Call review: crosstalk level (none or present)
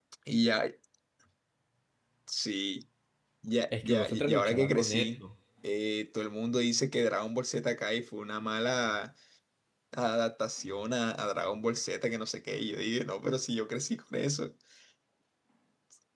present